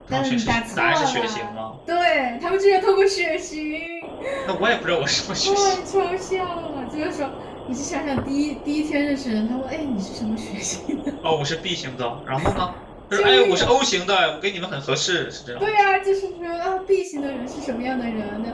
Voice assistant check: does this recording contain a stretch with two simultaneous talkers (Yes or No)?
Yes